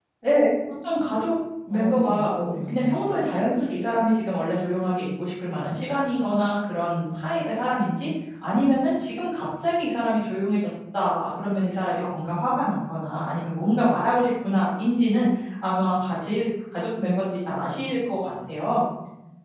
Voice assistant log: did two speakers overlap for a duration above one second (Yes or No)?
Yes